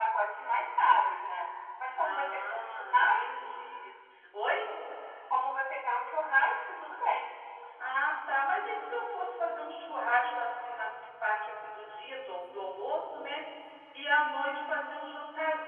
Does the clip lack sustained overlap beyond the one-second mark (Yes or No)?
No